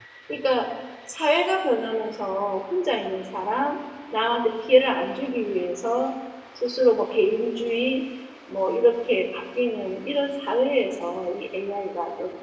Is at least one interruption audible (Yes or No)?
No